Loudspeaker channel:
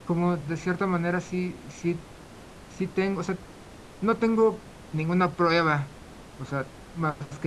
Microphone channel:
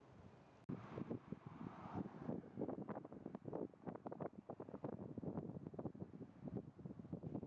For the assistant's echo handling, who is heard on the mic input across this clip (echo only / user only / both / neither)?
neither